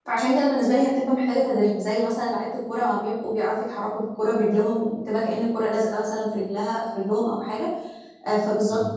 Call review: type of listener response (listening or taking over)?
listening